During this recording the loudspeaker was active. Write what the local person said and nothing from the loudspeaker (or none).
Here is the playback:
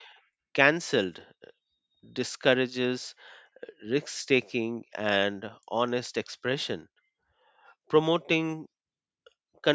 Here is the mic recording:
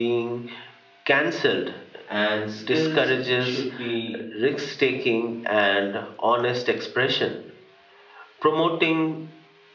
and skills should be